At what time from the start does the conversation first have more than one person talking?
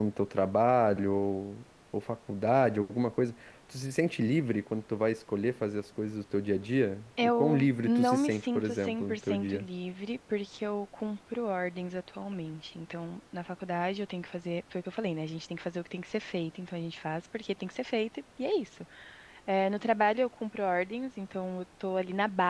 7 s

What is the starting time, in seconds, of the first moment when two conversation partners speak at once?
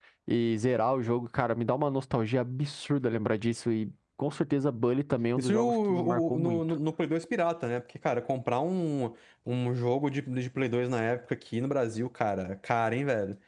5 s

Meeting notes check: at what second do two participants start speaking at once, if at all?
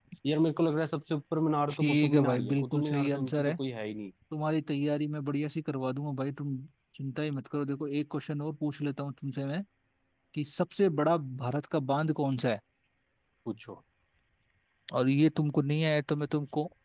2 s

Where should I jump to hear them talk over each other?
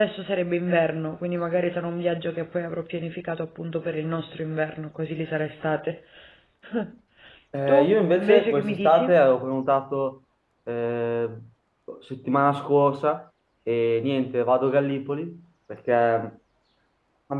8 s

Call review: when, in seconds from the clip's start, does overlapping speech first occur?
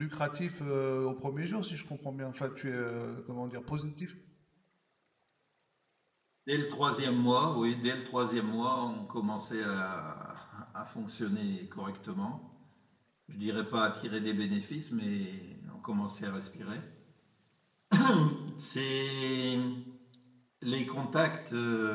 none

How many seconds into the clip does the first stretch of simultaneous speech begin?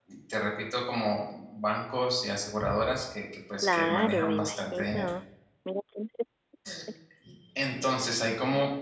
4 s

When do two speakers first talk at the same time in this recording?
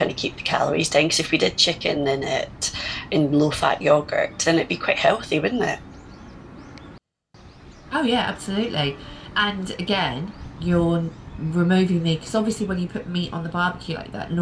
none

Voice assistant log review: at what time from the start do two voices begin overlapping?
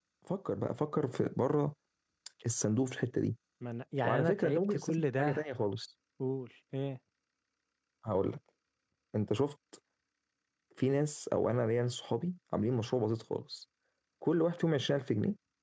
4 s

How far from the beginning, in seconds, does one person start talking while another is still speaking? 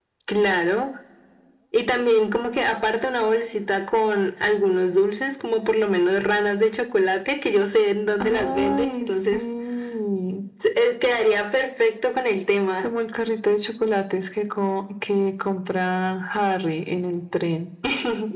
8 s

